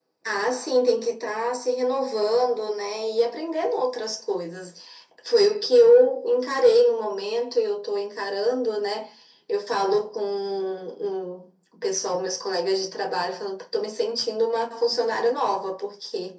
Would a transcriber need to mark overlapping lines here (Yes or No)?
No